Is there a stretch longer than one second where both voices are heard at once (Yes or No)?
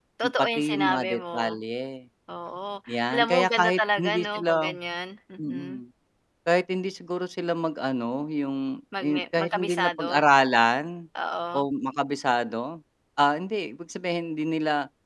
Yes